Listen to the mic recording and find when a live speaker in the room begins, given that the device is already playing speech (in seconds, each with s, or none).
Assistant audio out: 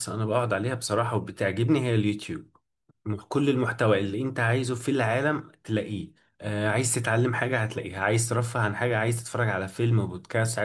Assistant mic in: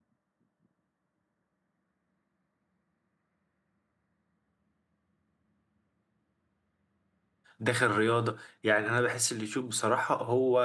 7.6 s